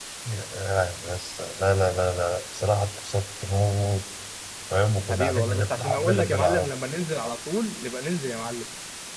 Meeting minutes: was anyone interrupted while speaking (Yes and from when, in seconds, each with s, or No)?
Yes, from 5.1 s